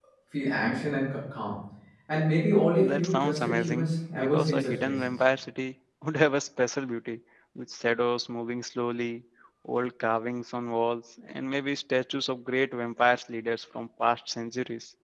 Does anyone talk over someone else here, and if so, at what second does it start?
2.8 s

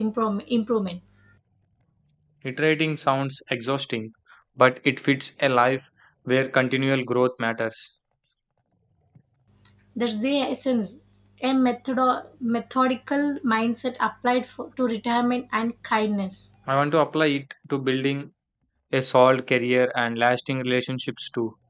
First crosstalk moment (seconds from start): none

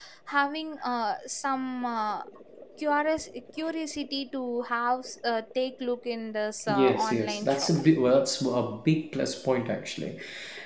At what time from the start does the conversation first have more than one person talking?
6.7 s

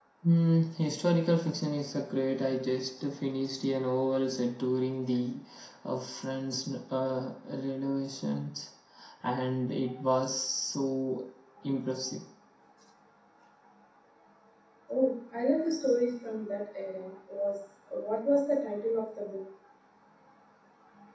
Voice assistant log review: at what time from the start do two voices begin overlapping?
none

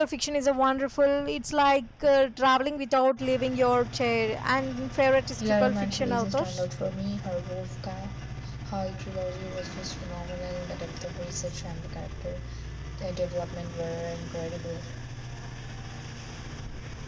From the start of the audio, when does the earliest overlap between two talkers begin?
5.4 s

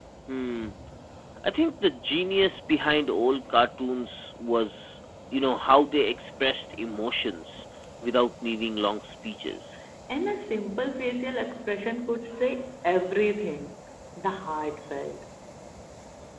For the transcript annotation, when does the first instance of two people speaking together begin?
none

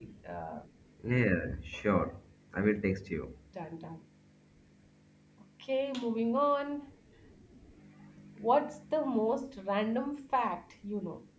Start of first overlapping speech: none

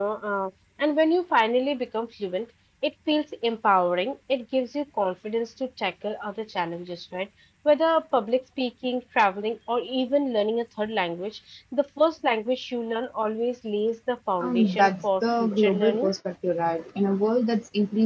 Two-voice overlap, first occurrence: 14.4 s

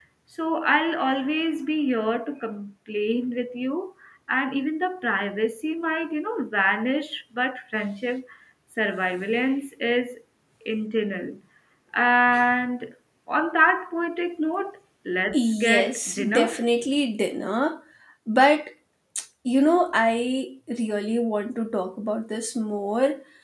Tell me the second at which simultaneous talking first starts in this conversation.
15.3 s

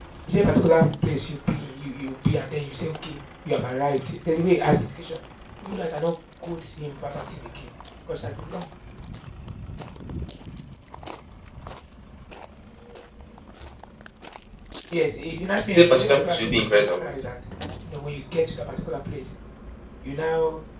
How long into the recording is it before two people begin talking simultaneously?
15.7 s

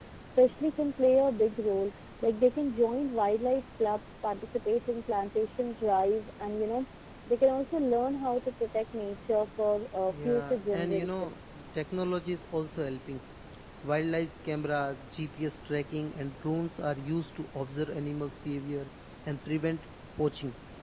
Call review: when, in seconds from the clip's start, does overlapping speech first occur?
10.1 s

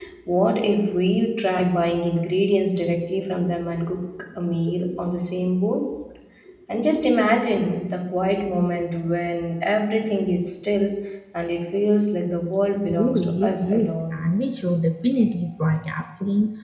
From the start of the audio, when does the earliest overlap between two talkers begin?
12.9 s

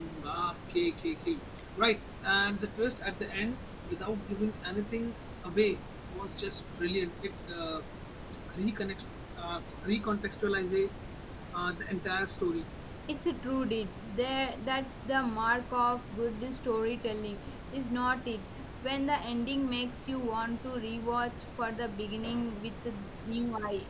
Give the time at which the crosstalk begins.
none

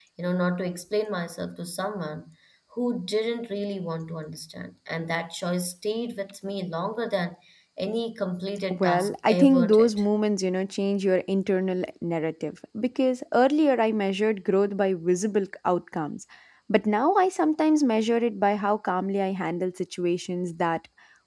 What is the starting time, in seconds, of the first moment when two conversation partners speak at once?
8.7 s

